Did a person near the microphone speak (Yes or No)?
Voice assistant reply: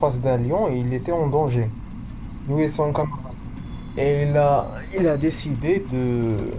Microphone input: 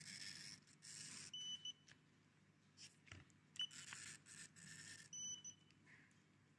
No